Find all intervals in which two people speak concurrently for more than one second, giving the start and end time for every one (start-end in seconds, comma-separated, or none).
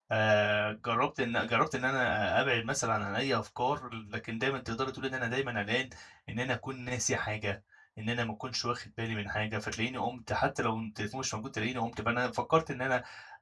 none